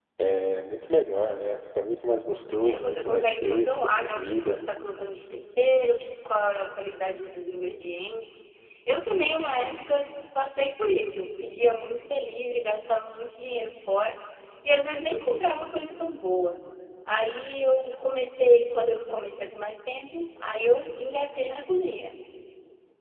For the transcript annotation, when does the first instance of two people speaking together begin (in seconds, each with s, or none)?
2.6 s